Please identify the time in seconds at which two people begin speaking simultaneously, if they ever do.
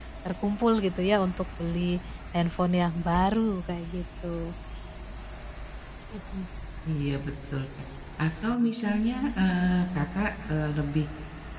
none

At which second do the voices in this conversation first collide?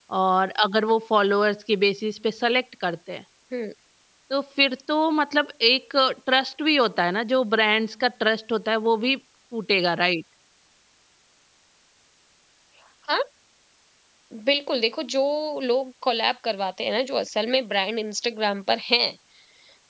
none

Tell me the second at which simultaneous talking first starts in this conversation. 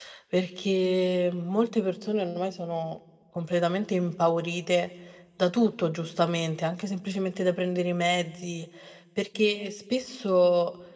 none

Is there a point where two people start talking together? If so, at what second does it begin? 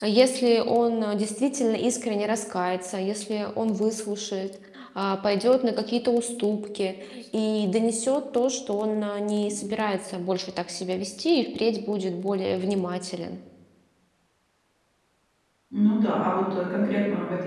none

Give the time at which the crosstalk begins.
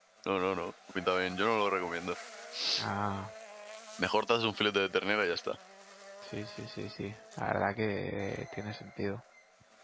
none

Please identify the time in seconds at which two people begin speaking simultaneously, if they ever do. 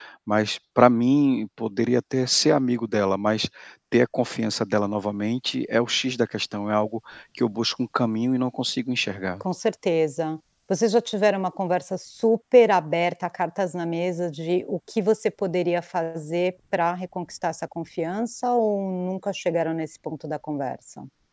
none

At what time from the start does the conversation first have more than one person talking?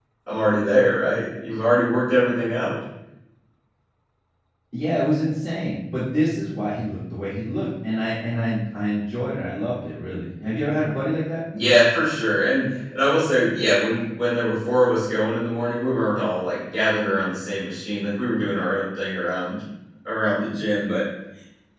none

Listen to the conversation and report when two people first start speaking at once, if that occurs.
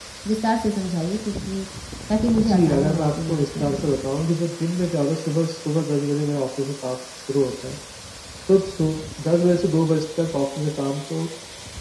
2.4 s

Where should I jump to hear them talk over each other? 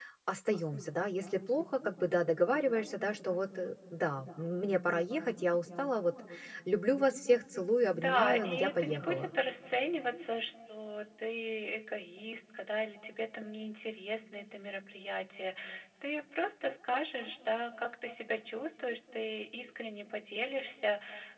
8.0 s

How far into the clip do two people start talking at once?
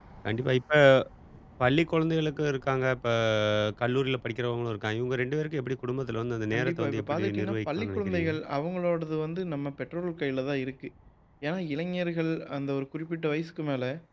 6.5 s

